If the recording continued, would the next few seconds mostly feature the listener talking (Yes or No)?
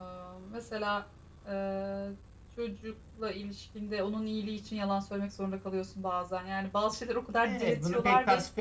Yes